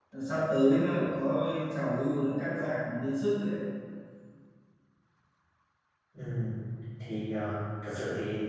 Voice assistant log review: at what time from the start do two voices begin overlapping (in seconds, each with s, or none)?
none